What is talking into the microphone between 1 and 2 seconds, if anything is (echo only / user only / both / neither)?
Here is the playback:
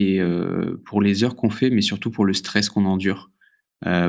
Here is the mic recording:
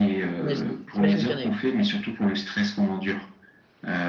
both